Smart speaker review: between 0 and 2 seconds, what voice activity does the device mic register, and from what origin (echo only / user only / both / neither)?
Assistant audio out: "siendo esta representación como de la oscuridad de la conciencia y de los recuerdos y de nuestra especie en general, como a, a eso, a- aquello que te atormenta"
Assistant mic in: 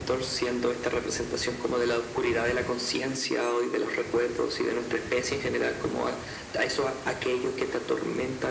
echo only